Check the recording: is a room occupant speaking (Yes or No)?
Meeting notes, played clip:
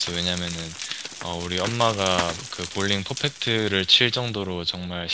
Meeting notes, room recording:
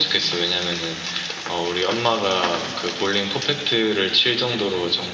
No